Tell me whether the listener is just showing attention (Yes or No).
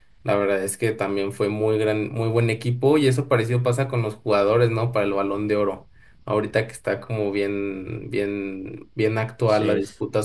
Yes